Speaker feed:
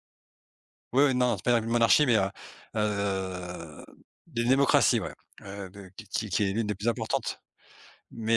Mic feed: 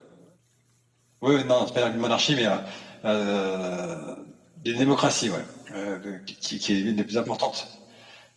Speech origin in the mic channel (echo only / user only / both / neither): echo only